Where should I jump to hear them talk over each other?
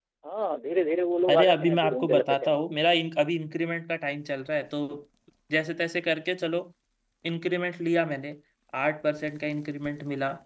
1 s

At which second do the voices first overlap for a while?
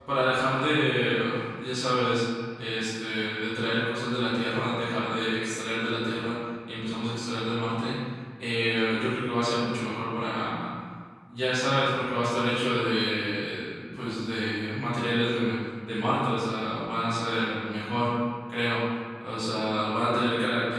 none

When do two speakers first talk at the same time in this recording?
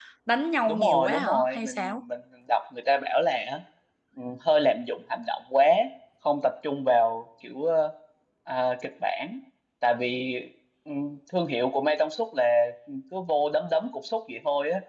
1 s

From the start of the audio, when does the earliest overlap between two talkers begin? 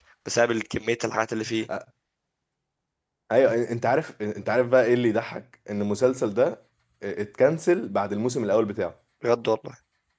none

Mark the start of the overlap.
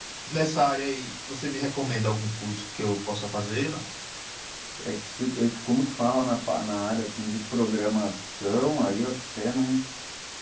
none

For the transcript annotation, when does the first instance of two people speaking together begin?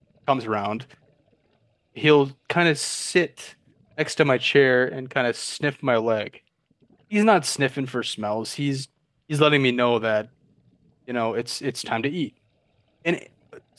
none

